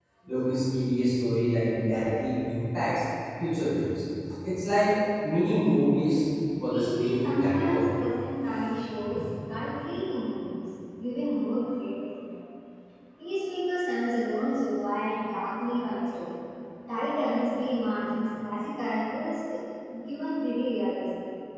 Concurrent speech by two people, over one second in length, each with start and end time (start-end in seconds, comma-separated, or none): 6.6-7.8